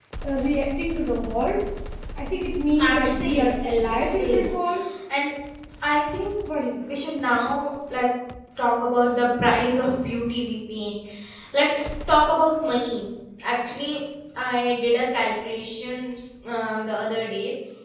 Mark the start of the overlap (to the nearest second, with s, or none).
3 s